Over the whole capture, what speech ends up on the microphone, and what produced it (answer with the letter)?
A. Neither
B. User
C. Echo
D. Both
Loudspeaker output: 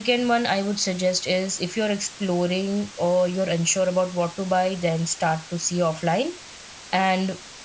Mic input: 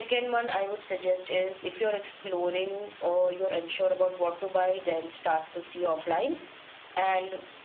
C